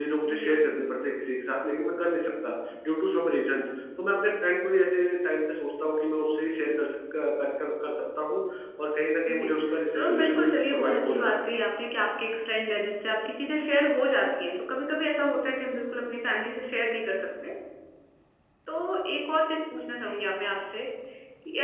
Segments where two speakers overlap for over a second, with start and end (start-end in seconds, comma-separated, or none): 9.9-11.3